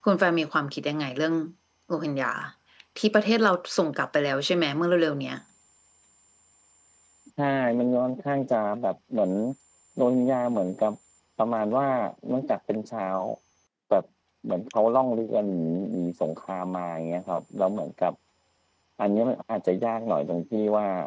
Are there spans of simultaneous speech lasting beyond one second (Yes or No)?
No